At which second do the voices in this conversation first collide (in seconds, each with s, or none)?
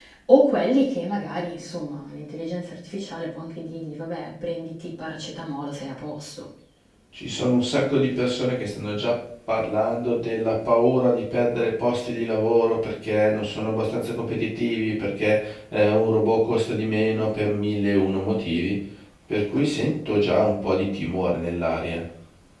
none